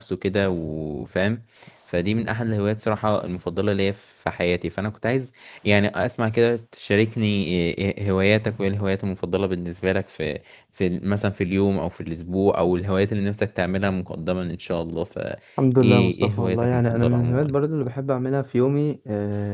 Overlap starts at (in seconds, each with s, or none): 15.8 s